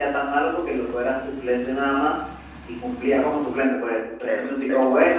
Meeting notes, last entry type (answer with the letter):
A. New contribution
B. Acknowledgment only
B